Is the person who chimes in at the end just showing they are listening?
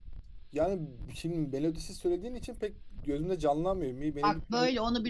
No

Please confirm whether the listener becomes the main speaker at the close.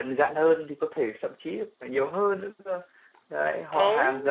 No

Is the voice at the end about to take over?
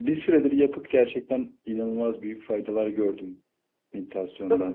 Yes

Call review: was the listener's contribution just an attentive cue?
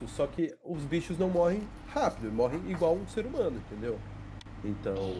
No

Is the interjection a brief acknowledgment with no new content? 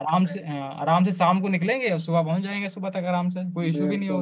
No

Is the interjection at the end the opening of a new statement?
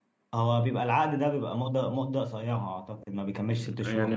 Yes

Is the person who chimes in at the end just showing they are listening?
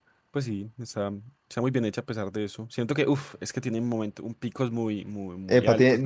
No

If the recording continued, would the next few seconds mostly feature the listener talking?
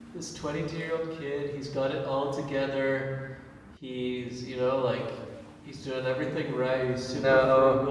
No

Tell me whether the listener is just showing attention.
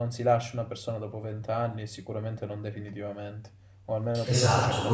No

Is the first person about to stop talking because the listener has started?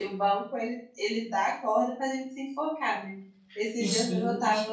No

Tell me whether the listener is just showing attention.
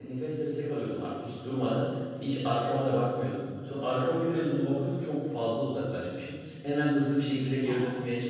Yes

